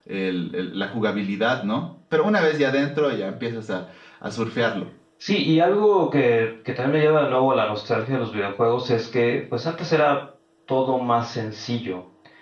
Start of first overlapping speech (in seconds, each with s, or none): none